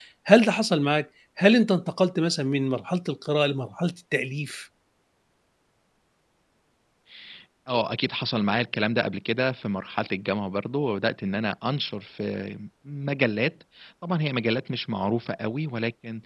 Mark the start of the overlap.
none

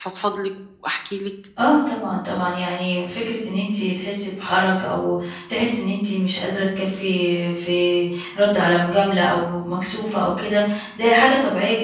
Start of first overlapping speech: none

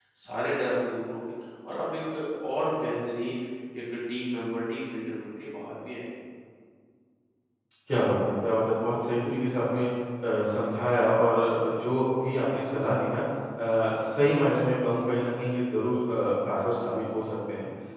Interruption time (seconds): none

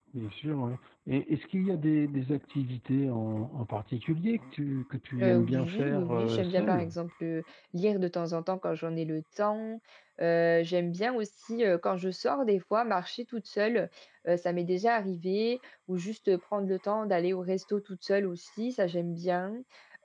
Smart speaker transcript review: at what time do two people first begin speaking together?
5.2 s

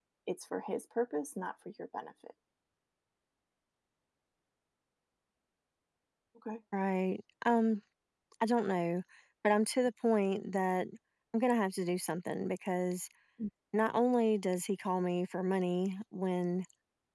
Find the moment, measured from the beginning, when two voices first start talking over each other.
none

